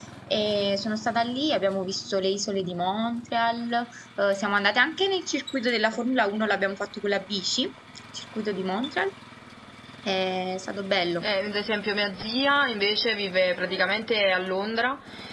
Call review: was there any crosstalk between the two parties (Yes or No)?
No